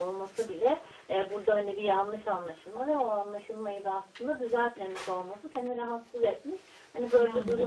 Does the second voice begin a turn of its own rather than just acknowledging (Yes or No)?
No